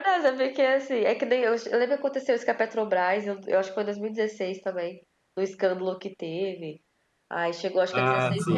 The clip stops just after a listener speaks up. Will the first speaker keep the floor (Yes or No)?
Yes